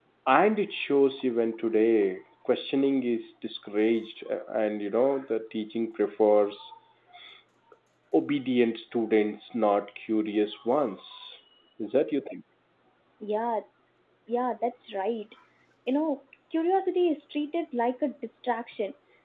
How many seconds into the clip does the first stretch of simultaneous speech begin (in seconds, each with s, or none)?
none